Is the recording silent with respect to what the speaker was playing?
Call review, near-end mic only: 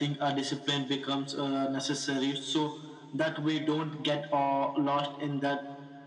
No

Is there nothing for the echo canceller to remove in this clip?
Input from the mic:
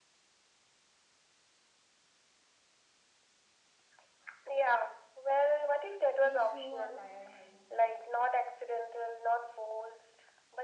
No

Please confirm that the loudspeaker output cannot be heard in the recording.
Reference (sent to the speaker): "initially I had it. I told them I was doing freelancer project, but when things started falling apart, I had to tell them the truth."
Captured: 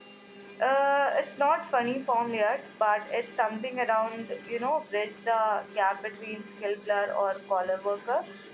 Yes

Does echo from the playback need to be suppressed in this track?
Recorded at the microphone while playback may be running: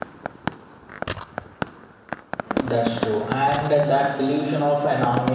No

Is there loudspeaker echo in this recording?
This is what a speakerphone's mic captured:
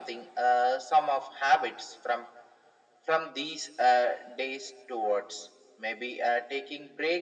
Yes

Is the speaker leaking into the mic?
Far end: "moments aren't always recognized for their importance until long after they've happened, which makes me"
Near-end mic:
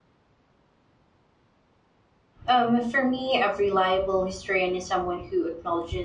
No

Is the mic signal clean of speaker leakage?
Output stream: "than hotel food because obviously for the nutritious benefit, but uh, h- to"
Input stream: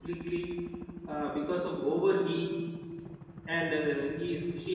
Yes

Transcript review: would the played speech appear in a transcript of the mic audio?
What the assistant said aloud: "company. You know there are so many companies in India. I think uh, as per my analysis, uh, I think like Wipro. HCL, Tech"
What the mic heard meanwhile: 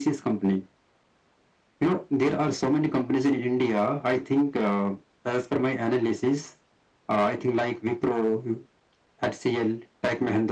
Yes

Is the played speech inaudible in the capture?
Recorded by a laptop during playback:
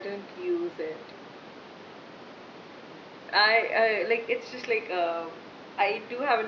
Yes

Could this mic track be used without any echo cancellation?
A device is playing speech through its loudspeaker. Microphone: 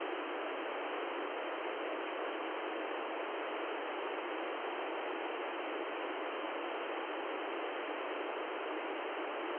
Yes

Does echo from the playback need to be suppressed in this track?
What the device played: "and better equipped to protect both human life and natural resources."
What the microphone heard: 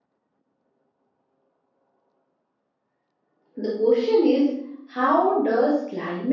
No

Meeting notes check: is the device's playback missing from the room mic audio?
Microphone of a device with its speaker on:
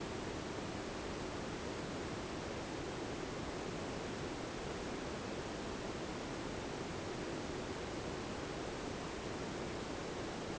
Yes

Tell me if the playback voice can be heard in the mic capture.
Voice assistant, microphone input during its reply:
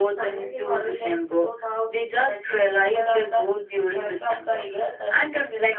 Yes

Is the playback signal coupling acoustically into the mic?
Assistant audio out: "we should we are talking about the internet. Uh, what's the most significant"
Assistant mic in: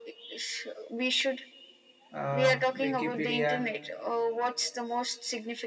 Yes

